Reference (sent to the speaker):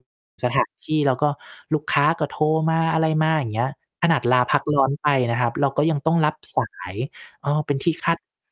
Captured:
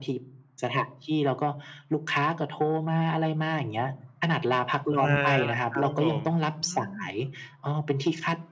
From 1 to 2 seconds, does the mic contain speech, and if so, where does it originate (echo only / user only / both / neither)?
echo only